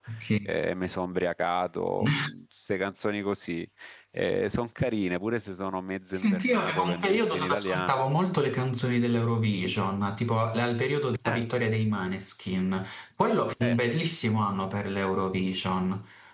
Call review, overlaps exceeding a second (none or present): present